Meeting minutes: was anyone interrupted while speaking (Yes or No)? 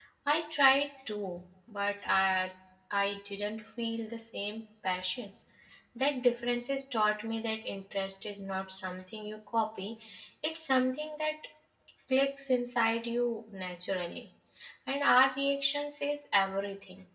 No